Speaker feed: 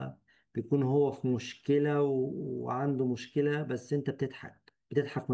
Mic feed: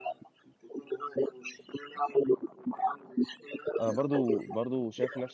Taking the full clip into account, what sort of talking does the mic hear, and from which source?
both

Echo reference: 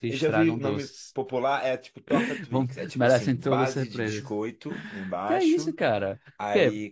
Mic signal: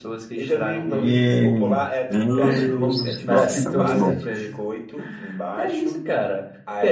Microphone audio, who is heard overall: both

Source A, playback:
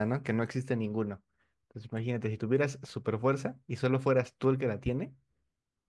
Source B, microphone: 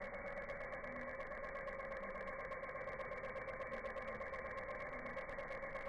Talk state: neither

